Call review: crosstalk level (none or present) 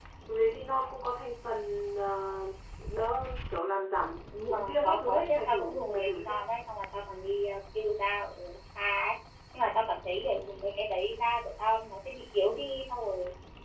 present